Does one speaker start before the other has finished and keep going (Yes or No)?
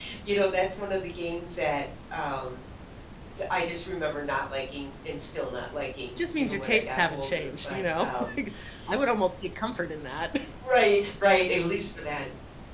Yes